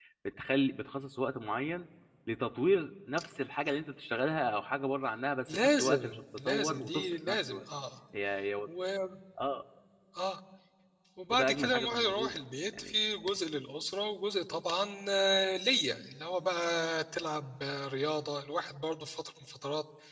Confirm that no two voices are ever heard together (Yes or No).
No